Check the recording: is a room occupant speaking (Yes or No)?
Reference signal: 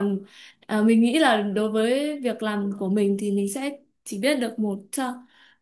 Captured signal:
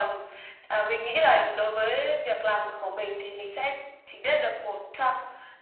No